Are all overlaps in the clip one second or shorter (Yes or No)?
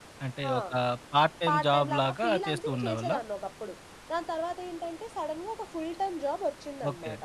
No